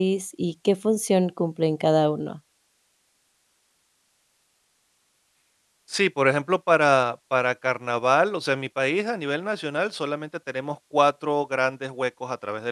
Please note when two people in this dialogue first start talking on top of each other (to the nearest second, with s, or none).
none